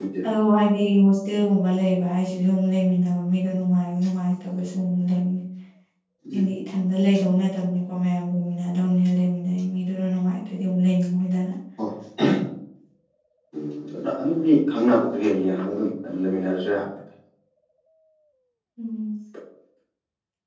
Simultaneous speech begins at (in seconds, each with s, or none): none